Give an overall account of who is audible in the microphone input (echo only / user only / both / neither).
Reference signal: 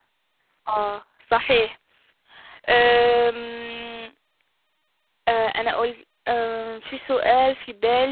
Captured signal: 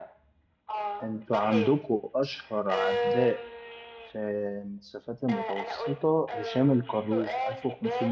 both